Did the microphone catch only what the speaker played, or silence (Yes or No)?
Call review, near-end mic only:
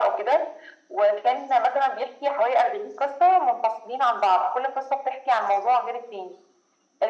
Yes